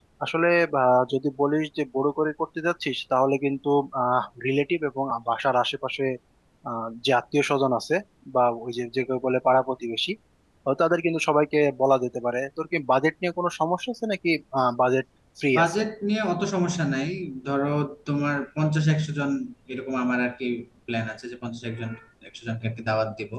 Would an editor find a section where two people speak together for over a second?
No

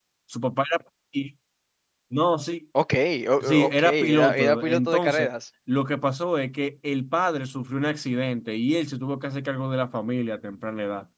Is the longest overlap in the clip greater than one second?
Yes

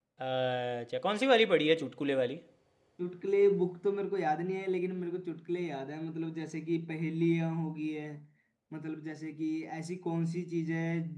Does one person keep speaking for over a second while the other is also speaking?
No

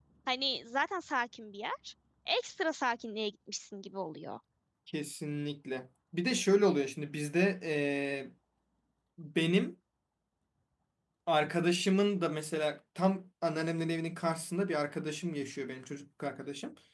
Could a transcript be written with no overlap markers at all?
Yes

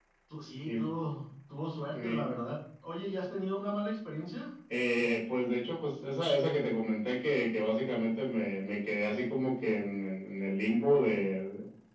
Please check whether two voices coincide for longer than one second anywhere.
No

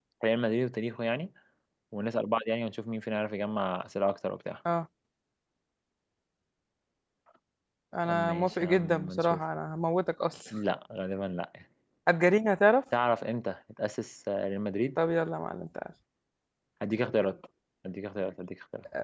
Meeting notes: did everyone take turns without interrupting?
No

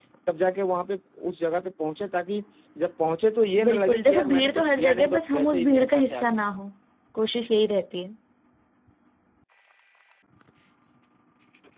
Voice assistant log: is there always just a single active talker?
No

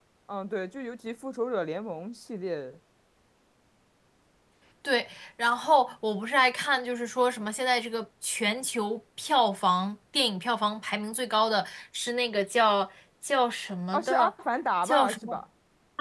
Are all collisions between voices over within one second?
Yes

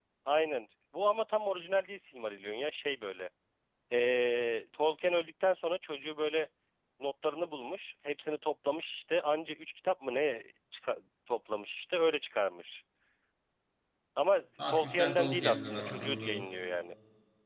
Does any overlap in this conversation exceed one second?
Yes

